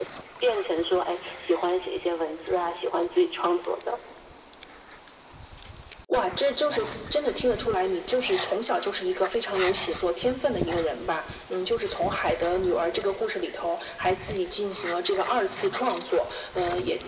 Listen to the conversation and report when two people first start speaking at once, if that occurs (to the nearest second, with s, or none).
none